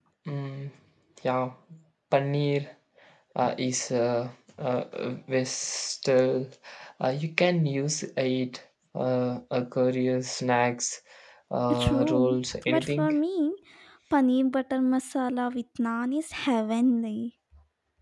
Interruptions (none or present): present